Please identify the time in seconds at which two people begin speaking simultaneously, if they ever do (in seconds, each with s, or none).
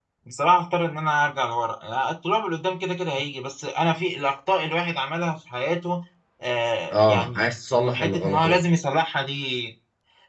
6.9 s